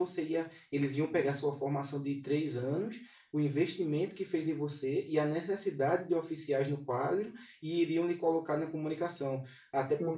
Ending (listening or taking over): listening